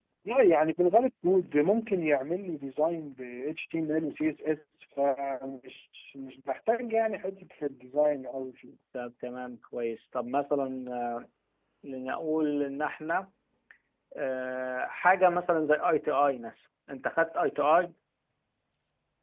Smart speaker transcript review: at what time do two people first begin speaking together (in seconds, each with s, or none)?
none